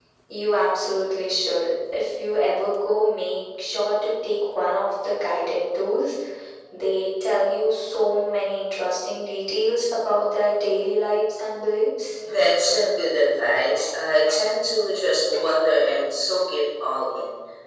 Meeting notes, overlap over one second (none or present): none